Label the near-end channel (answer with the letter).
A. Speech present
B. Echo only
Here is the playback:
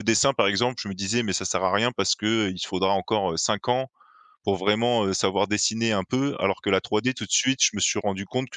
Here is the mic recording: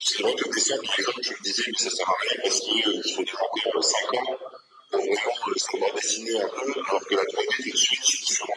B